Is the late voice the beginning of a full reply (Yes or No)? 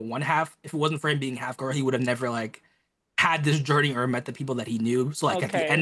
Yes